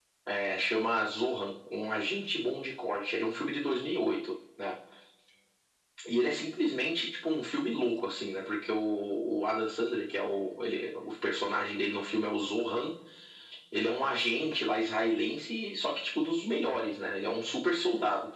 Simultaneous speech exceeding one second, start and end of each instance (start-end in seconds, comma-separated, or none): none